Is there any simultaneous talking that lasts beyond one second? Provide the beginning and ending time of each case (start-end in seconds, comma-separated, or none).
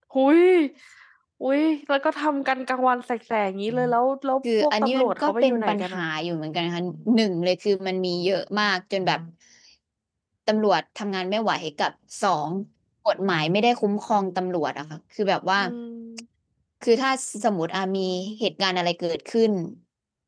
4.6-6.0